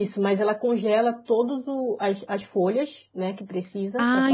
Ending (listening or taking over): taking over